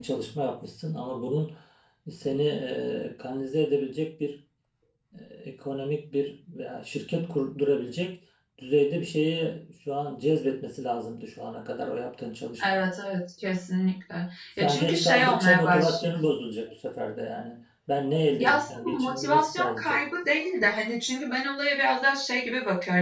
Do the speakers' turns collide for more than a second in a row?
Yes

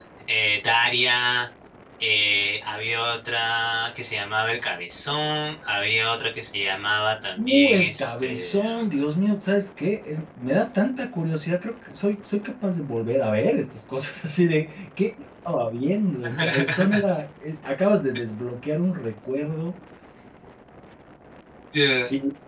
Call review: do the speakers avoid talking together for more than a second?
No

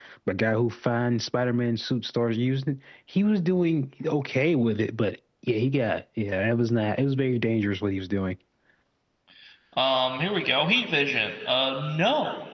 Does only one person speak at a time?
Yes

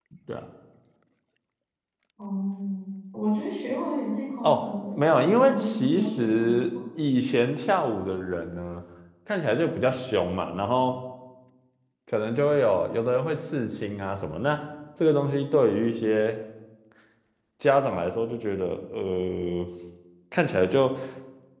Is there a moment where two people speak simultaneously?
Yes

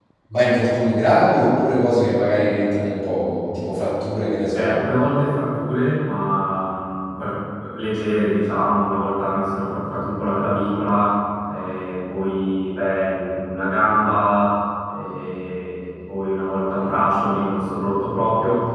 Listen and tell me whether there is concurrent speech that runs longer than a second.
No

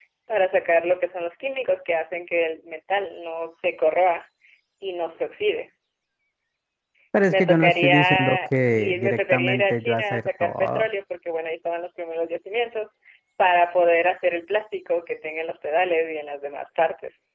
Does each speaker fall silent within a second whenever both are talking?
No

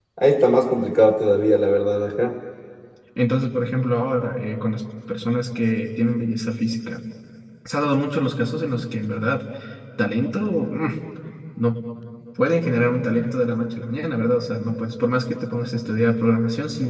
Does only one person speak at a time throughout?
Yes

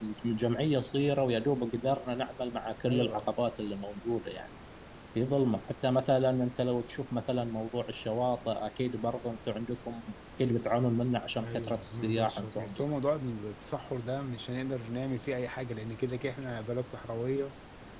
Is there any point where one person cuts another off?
Yes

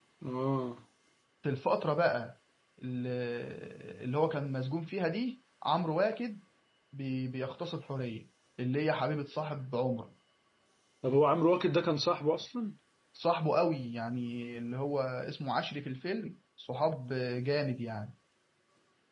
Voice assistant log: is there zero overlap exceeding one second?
Yes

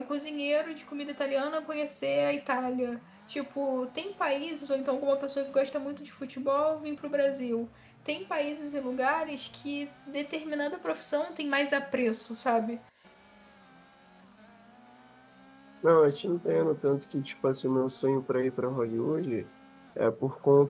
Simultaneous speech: No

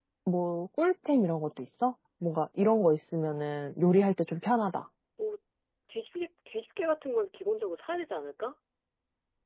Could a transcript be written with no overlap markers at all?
Yes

